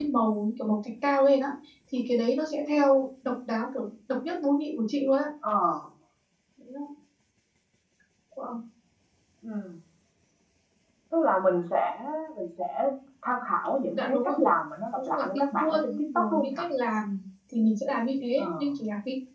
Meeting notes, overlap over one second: present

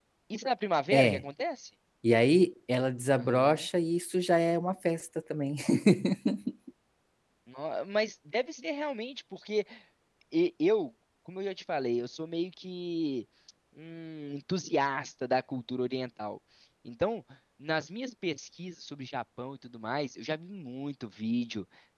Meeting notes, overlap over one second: none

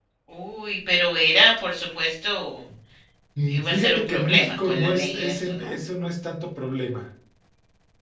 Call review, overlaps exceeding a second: present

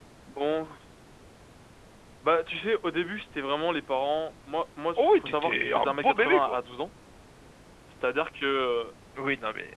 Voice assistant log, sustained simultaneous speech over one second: present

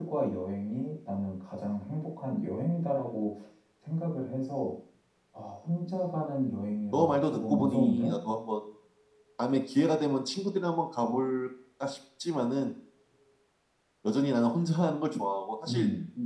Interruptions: present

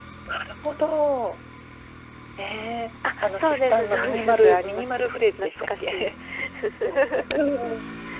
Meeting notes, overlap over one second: present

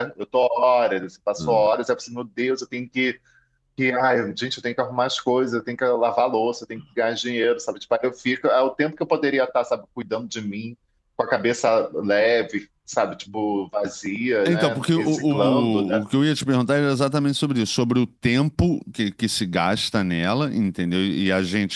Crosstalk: present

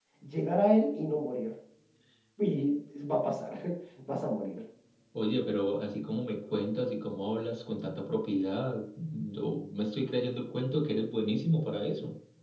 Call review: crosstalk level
none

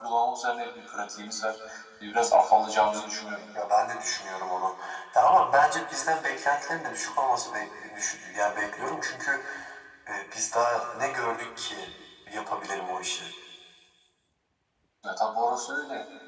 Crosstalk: none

